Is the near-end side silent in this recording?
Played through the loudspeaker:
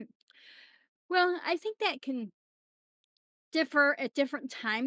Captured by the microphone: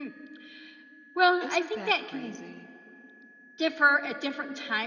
No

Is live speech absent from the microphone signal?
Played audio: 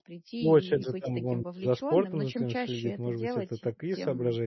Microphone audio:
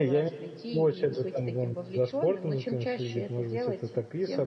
Yes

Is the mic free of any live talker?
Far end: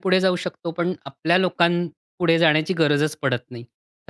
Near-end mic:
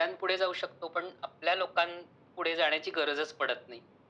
Yes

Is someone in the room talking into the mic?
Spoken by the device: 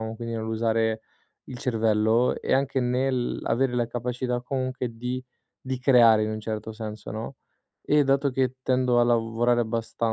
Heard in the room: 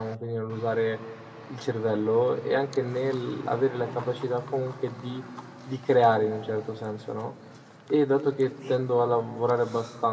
No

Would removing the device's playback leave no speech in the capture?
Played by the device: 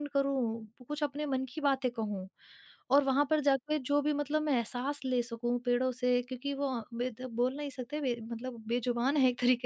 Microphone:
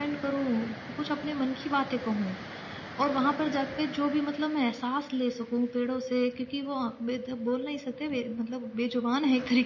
Yes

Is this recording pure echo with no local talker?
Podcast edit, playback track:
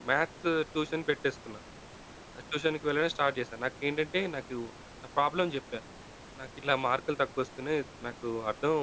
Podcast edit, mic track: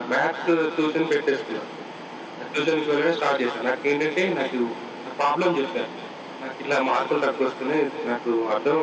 Yes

